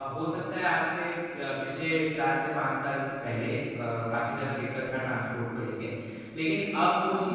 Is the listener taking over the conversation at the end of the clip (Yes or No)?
No